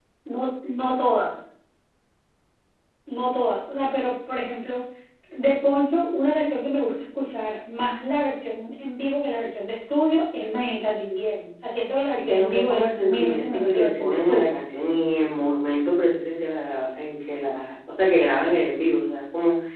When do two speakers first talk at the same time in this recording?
12.3 s

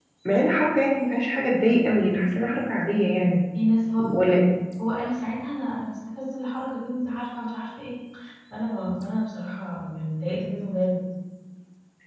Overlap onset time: none

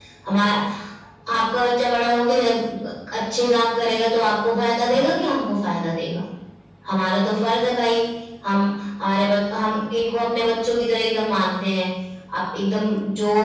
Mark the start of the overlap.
none

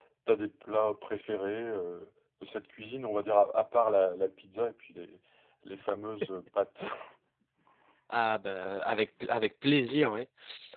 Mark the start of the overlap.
none

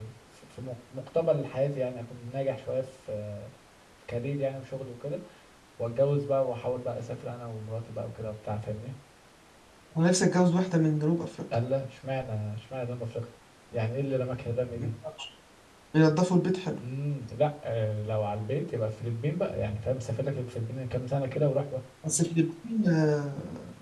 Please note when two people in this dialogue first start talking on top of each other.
none

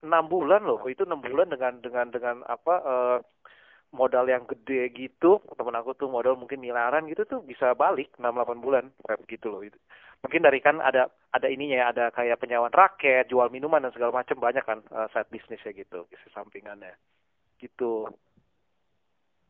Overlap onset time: none

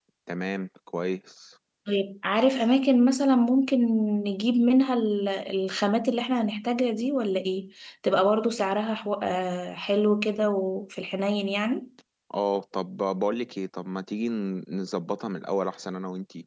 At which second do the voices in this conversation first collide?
none

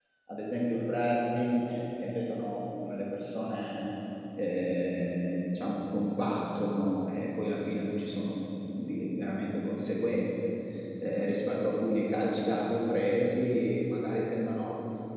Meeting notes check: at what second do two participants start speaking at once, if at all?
none

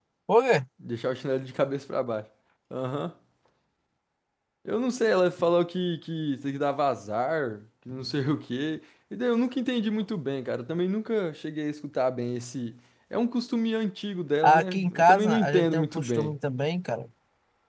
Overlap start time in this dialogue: 14.4 s

